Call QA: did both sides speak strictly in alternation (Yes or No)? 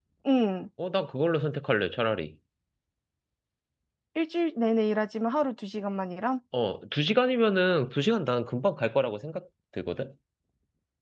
Yes